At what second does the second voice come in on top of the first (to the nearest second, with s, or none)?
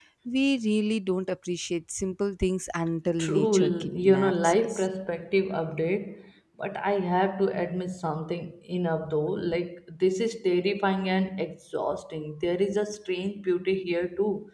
3 s